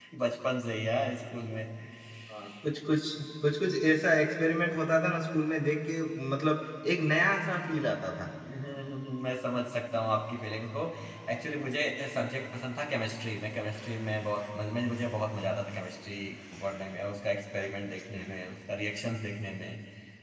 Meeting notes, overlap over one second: none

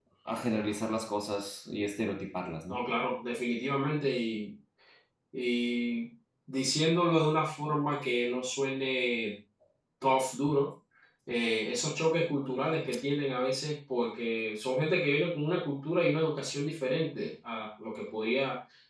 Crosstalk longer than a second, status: none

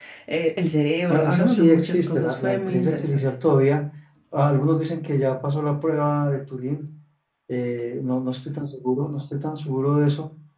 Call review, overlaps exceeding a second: present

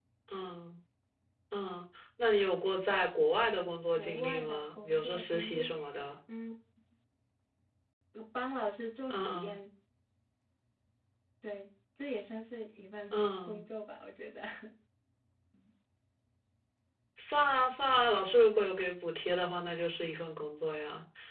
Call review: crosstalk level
present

